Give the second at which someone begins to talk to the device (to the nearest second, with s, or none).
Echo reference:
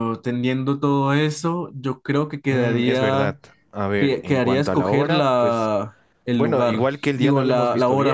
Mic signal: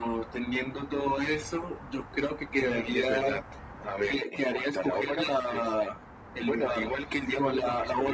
none